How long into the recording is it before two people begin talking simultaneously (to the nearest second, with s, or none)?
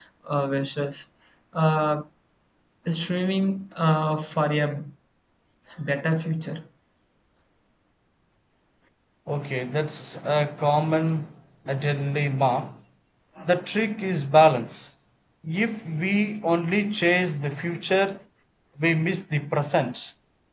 none